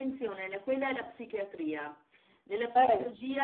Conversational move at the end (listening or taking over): listening